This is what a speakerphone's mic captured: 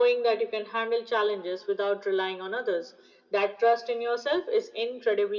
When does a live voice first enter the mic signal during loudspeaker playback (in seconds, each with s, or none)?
none